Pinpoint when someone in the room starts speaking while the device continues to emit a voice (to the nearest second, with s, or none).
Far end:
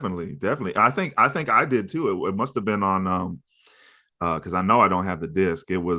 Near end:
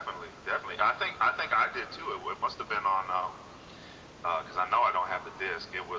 none